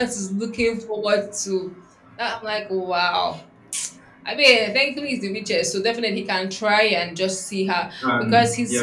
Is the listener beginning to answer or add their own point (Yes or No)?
No